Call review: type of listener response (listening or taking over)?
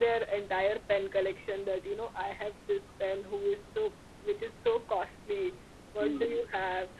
listening